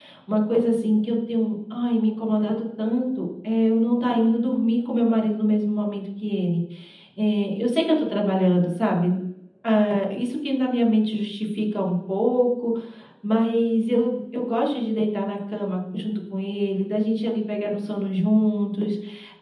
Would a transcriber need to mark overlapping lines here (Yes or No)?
No